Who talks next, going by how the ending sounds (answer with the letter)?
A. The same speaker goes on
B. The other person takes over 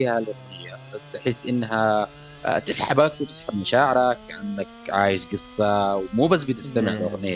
A